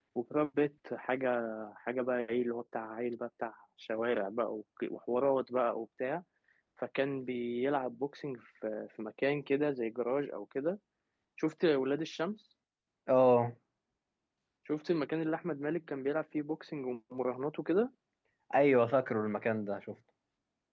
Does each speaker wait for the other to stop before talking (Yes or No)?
Yes